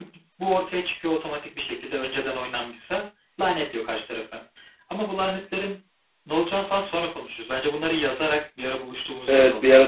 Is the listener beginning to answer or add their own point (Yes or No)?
Yes